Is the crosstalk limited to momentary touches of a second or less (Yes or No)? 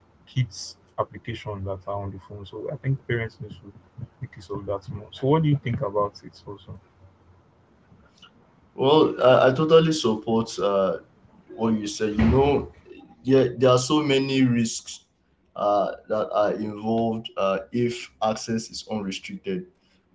Yes